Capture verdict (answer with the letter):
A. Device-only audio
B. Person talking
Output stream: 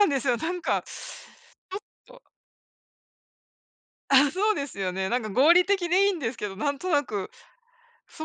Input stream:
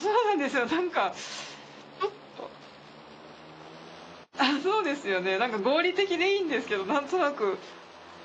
A